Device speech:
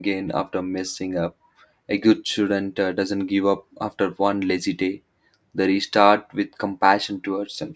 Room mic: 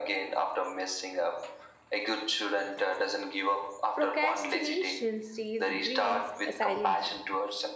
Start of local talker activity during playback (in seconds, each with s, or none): 3.9 s